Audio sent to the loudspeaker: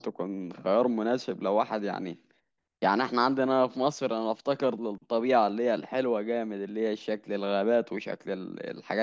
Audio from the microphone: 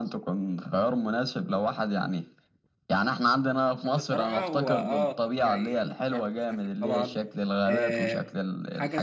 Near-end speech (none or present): present